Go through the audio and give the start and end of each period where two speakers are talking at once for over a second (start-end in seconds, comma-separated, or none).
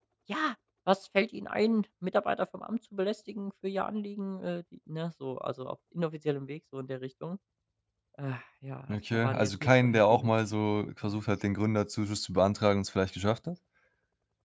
8.9-10.3